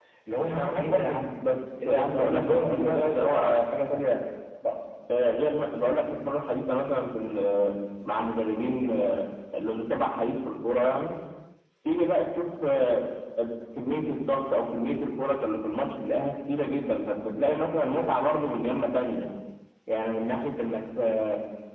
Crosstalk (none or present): present